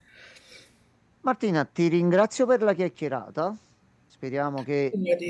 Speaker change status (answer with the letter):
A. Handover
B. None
B